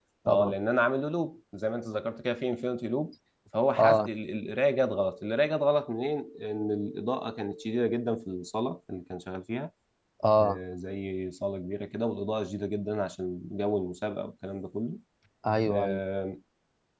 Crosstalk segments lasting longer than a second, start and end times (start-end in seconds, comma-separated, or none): none